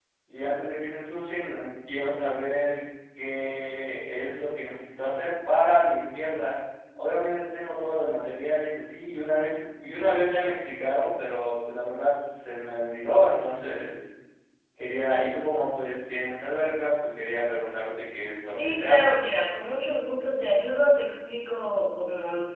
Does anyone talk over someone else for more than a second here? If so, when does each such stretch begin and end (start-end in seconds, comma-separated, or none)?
none